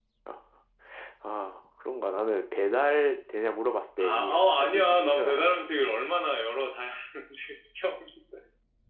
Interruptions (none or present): present